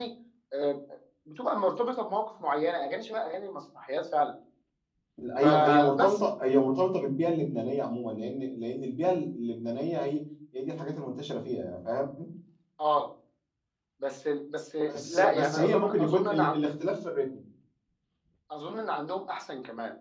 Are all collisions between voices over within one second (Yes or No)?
No